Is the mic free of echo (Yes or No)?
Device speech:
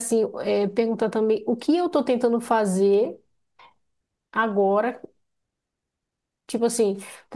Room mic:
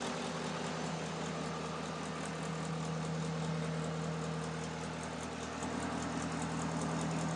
Yes